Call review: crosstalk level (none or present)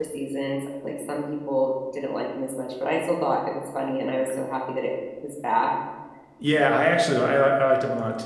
none